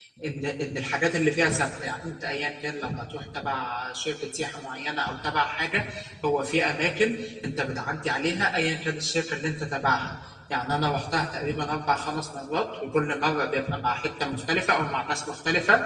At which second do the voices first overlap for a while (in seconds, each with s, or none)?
none